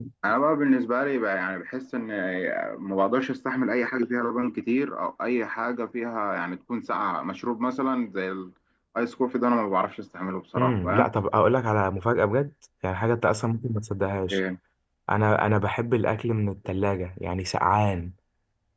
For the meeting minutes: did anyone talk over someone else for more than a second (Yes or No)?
No